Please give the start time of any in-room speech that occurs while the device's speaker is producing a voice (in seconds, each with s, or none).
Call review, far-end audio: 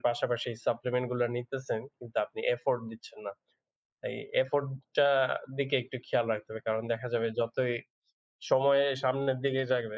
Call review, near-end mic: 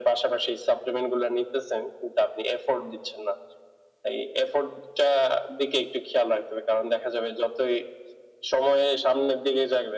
none